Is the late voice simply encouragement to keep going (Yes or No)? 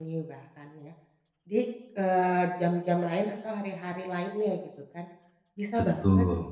Yes